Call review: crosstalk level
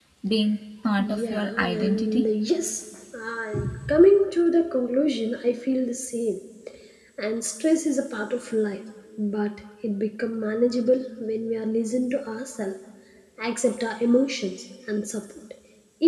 present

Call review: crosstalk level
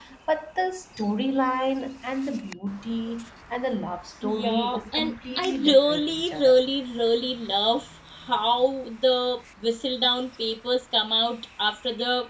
present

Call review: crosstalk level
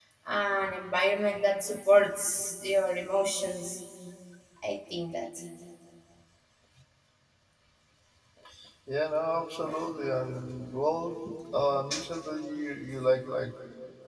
none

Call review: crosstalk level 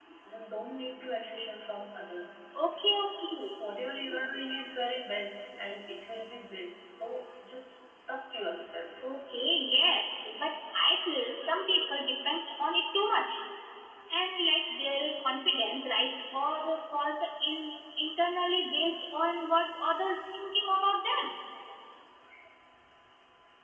none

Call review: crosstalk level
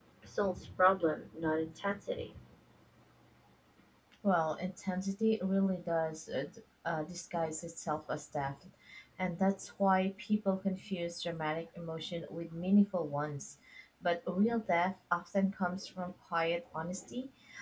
none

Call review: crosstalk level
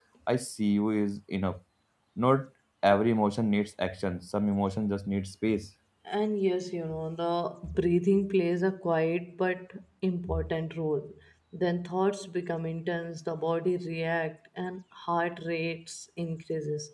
none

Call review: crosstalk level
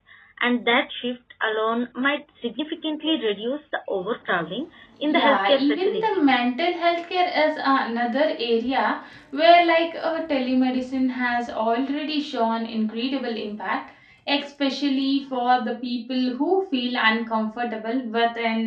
present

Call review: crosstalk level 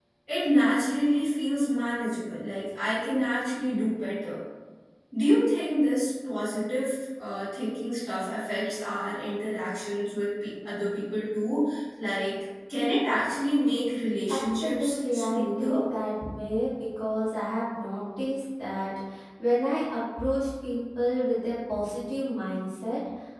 present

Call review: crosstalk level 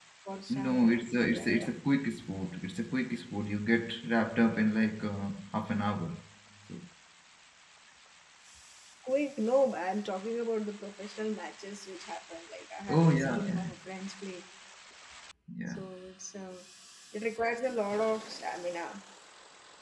present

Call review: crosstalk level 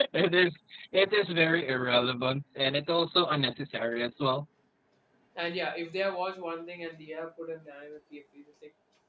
none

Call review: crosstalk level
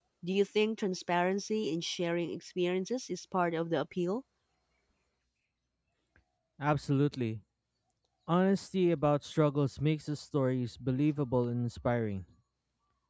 none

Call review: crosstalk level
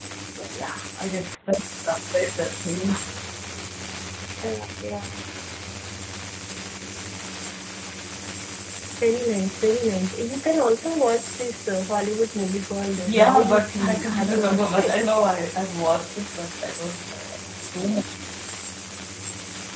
present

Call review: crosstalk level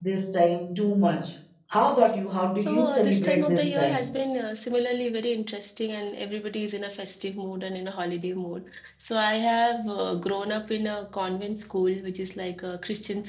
present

